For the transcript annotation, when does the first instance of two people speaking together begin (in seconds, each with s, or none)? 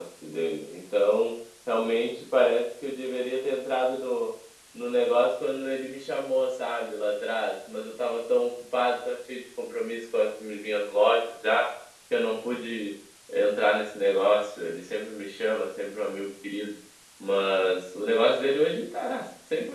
none